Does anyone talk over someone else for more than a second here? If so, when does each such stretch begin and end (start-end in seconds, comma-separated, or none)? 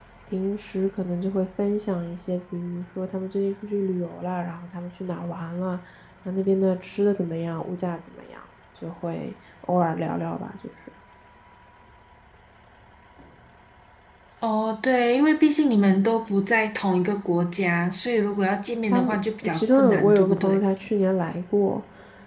18.9-20.6